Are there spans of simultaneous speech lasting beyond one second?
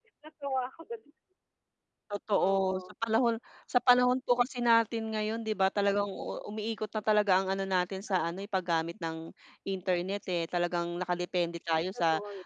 No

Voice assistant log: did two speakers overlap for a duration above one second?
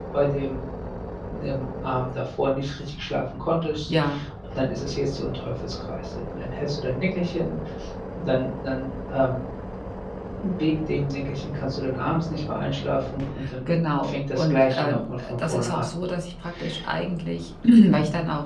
Yes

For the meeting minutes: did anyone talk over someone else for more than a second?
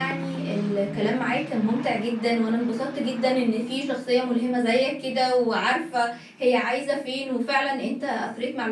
No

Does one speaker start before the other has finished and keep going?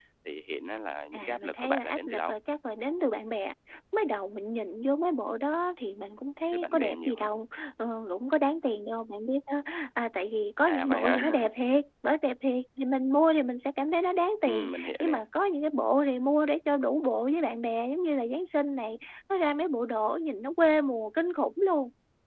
Yes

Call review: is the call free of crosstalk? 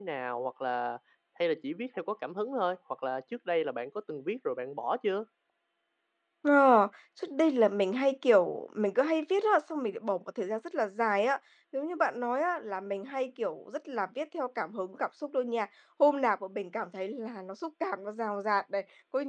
Yes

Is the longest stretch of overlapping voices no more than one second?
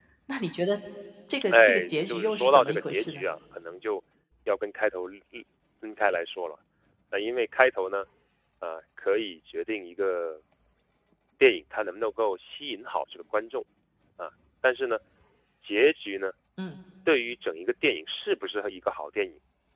No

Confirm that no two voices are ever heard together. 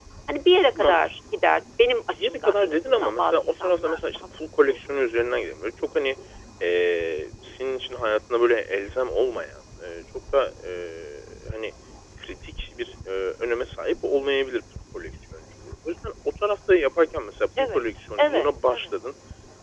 No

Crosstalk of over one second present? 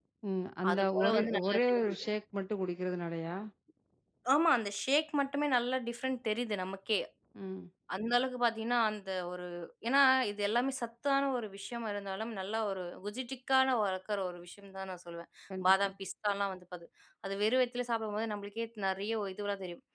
Yes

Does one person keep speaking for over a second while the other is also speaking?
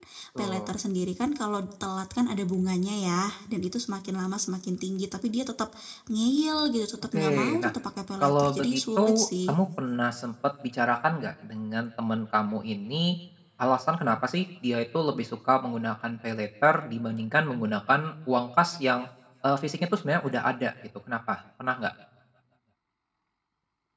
Yes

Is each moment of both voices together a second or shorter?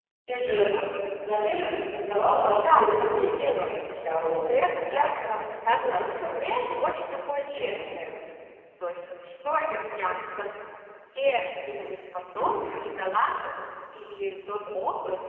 No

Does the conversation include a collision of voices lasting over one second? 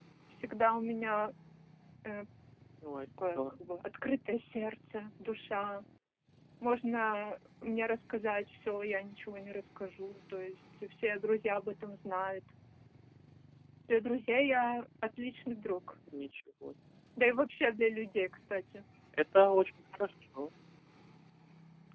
No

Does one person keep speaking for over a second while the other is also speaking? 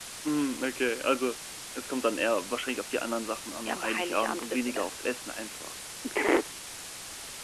Yes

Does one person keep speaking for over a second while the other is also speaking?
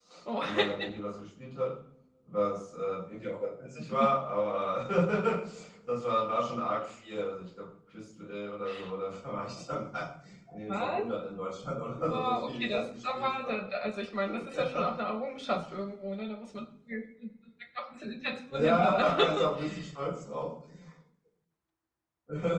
Yes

